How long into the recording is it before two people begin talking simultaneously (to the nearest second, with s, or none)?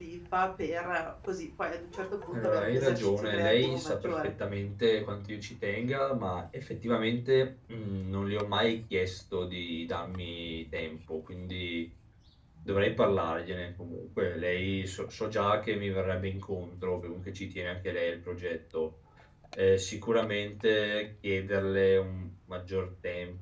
2 s